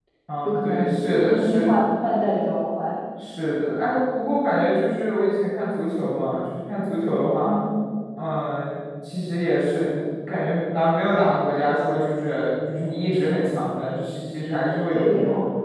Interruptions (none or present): present